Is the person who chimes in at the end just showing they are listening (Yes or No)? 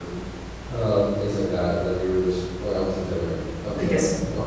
Yes